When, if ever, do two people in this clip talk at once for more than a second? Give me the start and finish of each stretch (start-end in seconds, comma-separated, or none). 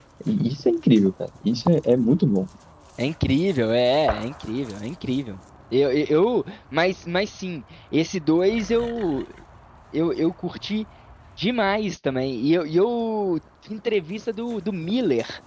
none